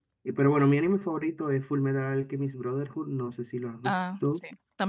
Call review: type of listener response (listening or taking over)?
taking over